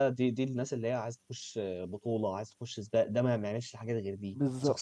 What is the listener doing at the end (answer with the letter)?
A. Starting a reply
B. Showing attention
A